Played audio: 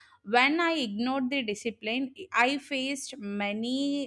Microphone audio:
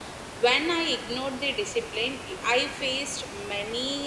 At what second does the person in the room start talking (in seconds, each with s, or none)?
none